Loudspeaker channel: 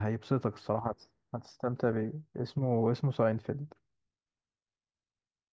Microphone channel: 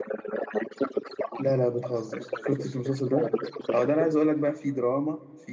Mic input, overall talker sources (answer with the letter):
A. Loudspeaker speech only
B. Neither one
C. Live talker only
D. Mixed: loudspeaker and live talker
D